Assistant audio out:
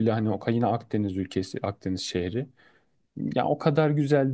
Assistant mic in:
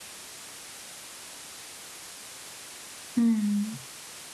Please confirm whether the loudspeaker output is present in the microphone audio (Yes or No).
No